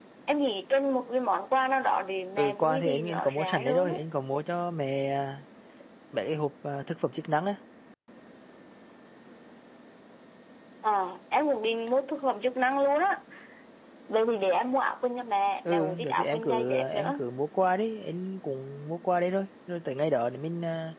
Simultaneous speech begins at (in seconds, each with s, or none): 2.4 s